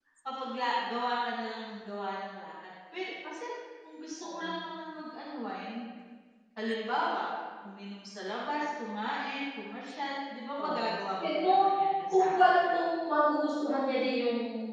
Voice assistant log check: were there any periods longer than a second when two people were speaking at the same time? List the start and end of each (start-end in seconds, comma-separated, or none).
11.2-12.7